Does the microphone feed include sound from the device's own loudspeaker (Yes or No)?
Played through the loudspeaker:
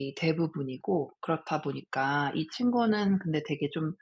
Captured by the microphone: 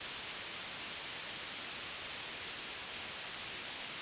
No